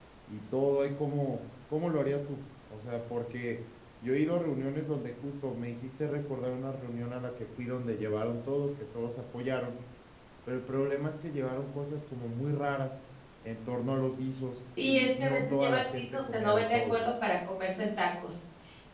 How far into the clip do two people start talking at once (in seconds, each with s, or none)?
14.8 s